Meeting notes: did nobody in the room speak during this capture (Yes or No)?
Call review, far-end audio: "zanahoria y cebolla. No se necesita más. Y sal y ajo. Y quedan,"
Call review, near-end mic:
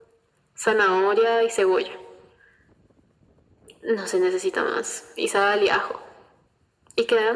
Yes